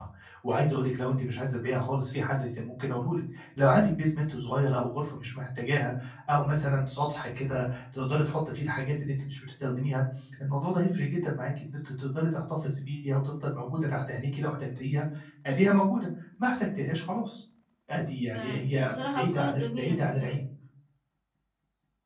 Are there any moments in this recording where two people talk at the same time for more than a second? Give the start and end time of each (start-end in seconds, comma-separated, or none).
18.3-20.3